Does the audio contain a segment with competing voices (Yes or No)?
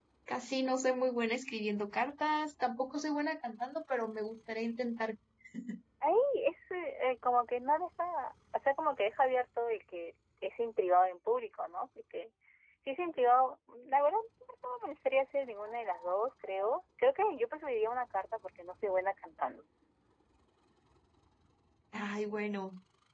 No